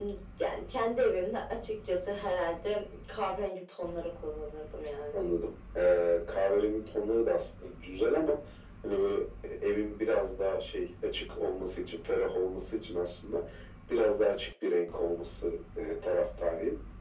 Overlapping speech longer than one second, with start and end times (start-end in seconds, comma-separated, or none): none